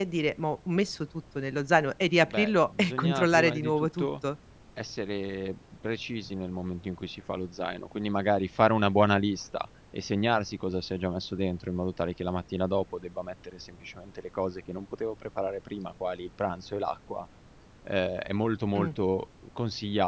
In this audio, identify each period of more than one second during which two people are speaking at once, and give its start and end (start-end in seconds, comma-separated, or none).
2.2-4.1